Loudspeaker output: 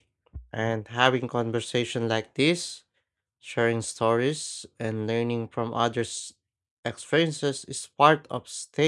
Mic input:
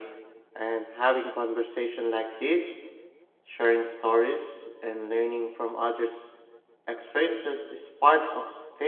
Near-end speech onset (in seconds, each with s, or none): none